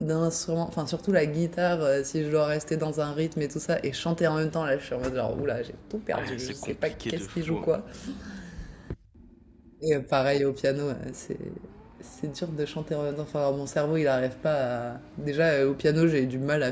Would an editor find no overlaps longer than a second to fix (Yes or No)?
No